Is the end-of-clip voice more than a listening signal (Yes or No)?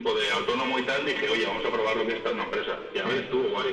No